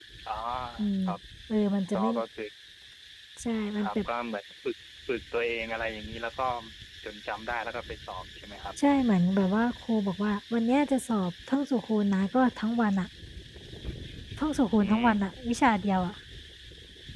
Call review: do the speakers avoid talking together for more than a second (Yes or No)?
Yes